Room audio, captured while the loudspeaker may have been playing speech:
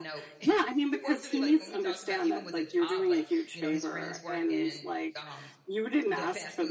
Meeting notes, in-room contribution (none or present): present